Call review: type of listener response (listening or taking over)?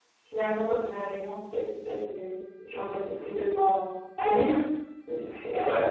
taking over